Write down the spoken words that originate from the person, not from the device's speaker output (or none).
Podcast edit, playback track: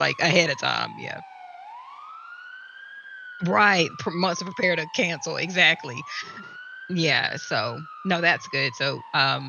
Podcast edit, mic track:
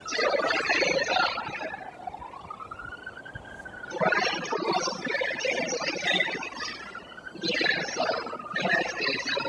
none